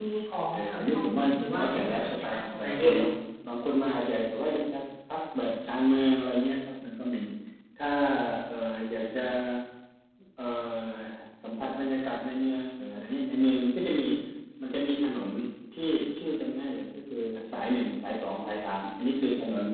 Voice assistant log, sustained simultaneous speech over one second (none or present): present